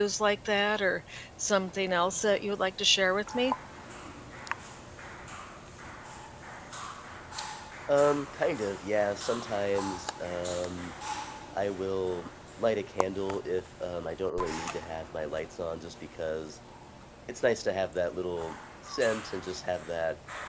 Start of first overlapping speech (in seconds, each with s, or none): none